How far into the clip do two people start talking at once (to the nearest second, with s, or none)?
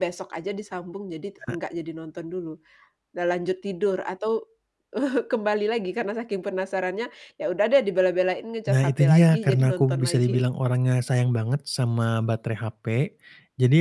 9 s